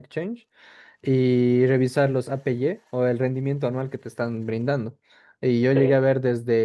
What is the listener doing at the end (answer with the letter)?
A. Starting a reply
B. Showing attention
B